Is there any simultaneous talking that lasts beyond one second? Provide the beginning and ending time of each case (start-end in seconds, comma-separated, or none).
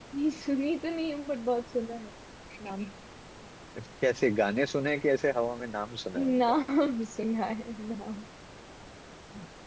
none